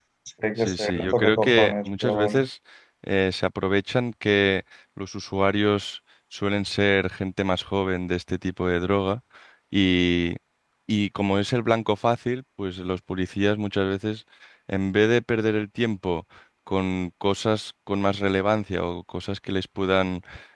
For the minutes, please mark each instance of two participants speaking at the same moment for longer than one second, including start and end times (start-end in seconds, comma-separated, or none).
0.6-2.4